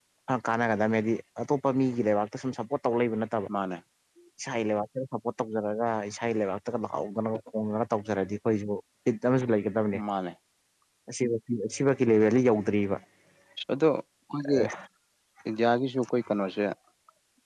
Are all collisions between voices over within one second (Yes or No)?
Yes